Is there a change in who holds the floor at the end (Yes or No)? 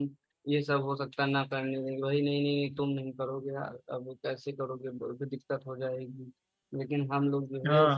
No